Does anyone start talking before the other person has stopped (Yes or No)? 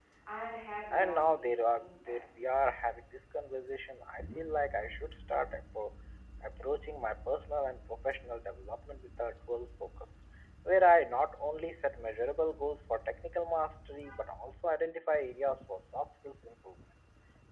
Yes